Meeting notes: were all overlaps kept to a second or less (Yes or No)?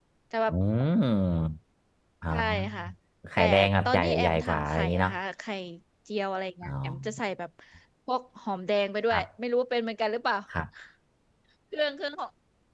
No